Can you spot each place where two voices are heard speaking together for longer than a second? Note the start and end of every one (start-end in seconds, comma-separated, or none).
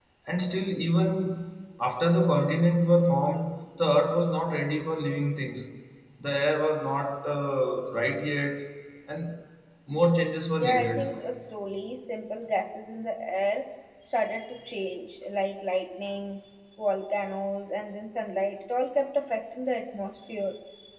none